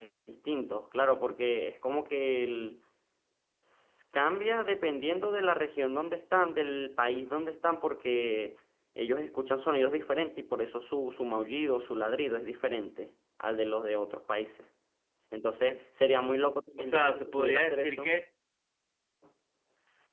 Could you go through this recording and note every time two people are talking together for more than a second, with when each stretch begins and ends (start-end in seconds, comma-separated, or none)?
16.8-18.1